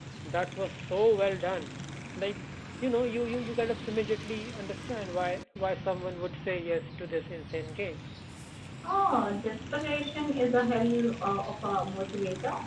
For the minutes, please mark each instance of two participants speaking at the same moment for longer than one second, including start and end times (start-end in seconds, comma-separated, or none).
none